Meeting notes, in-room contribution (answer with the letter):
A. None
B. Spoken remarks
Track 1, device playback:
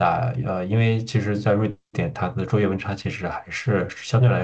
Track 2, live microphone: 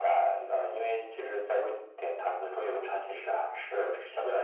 A